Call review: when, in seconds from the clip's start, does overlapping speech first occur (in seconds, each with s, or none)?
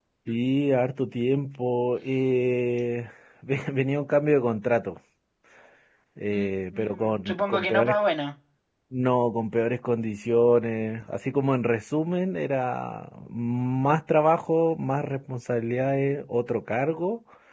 6.3 s